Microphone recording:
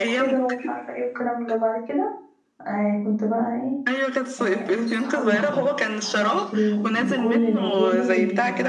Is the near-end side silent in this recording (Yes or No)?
No